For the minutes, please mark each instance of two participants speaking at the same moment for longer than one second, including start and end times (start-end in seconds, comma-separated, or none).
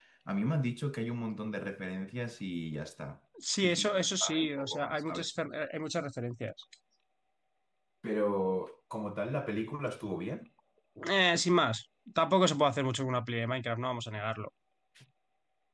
3.5-5.3